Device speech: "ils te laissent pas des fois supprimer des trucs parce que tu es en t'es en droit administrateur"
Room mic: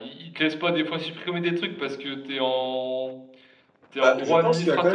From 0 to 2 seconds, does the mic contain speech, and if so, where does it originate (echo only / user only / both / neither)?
echo only